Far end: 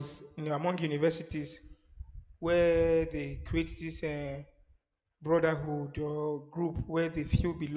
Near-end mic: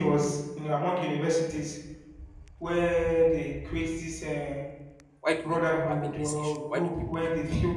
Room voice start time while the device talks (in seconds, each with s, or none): 5.2 s